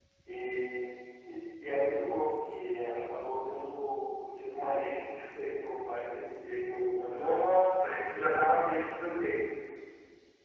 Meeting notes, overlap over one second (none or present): none